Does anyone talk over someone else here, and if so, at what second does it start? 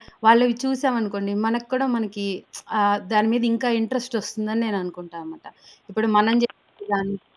none

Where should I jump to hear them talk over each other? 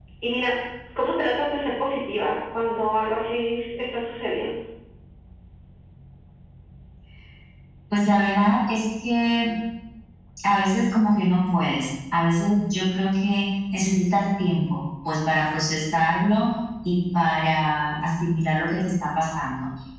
none

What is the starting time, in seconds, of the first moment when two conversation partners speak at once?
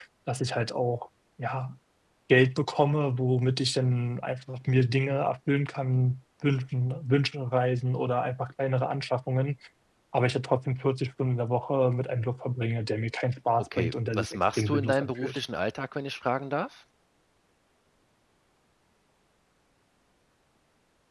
14 s

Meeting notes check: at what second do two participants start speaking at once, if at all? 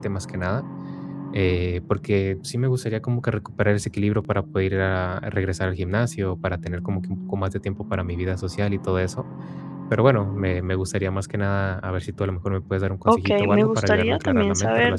13 s

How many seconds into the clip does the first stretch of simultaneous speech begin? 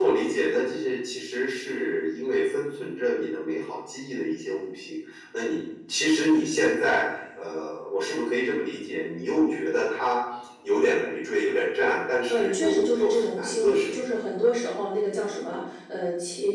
12 s

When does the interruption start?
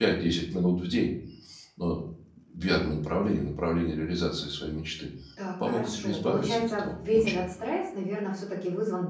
6 s

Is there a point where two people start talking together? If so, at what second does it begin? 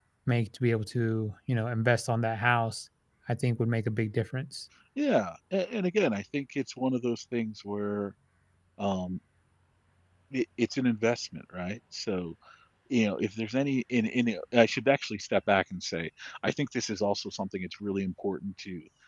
none

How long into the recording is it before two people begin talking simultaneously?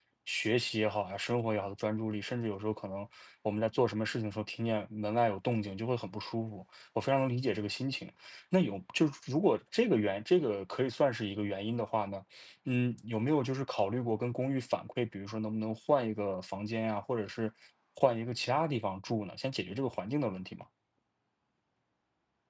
none

